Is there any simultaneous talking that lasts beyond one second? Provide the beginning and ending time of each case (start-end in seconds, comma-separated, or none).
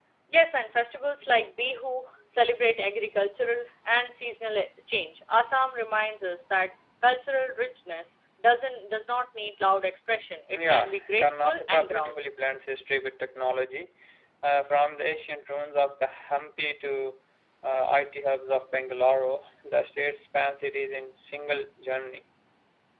10.5-12.3